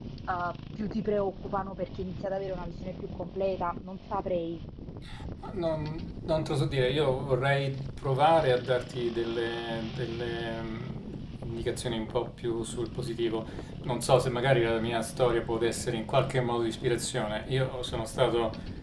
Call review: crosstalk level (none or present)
none